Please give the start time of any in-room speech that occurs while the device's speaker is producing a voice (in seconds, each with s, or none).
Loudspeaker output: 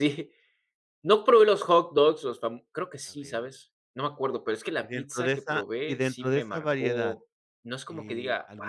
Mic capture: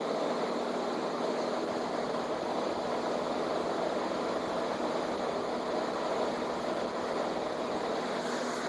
none